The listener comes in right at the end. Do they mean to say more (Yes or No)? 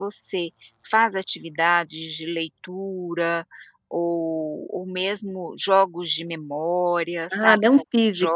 Yes